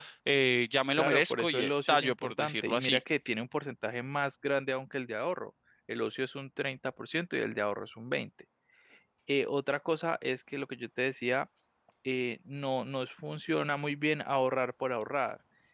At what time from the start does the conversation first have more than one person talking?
1 s

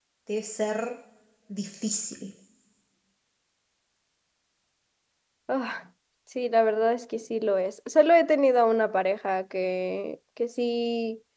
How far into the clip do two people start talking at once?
none

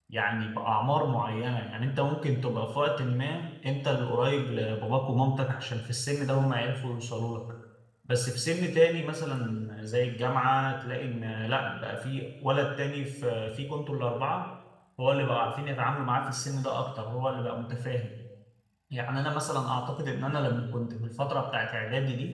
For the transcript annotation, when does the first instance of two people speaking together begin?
none

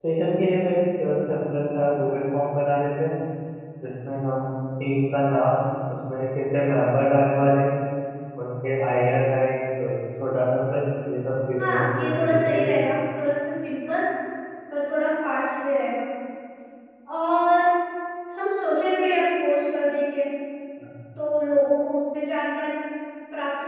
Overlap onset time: 12 s

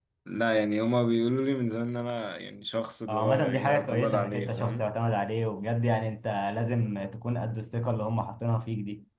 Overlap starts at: 3 s

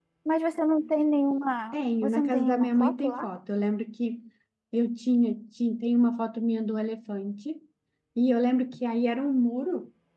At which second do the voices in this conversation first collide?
2 s

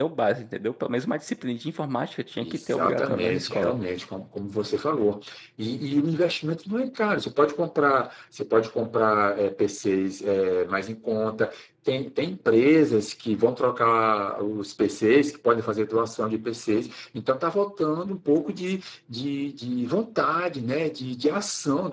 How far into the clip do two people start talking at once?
2 s

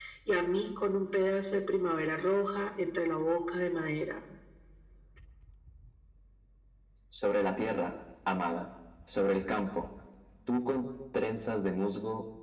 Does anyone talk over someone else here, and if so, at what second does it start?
none

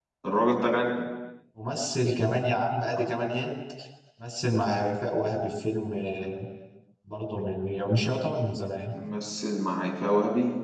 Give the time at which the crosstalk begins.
none

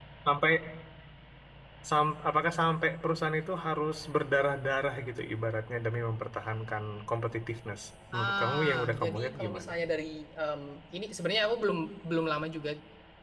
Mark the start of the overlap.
8 s

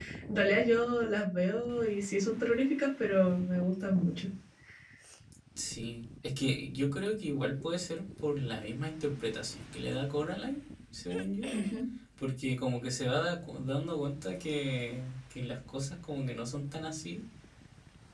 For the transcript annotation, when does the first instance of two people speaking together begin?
none

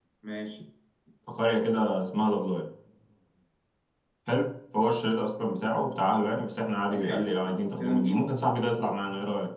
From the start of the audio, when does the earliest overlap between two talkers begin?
7 s

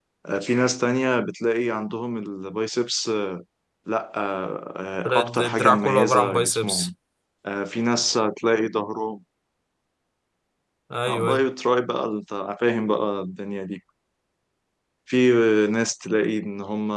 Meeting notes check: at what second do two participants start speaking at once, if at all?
5 s

